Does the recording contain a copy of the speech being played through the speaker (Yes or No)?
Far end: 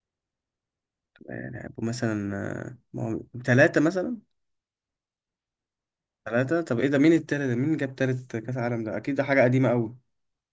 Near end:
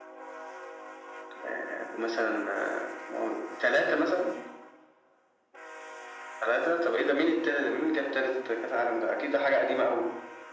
Yes